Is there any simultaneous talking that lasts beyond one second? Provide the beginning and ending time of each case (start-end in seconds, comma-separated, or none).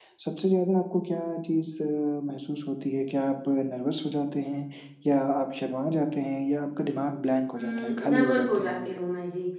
7.6-8.9